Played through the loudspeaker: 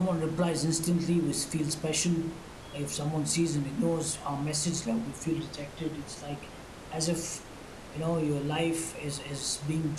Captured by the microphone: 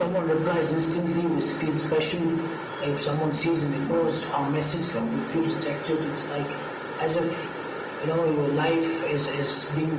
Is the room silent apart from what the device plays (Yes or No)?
Yes